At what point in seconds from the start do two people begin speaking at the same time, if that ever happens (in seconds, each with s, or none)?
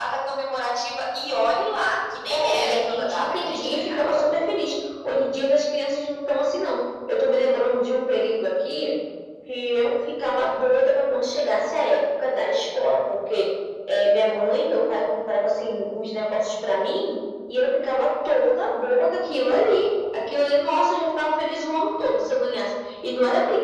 2.3 s